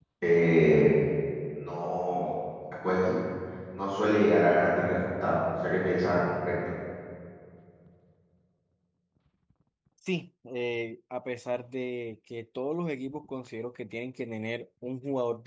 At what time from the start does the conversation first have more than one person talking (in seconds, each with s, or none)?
none